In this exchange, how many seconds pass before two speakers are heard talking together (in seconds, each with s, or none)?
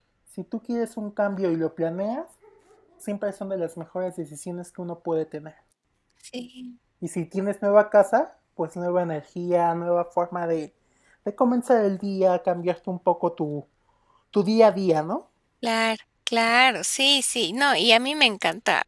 none